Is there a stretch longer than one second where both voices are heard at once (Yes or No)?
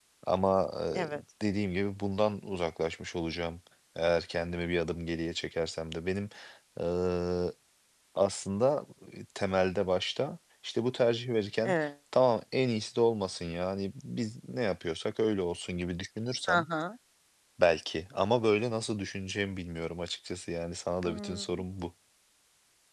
No